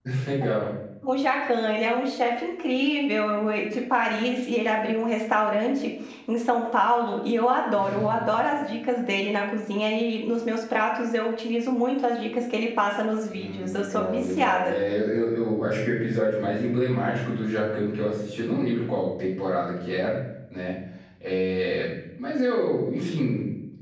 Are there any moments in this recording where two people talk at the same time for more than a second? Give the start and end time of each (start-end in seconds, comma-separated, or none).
13.3-14.7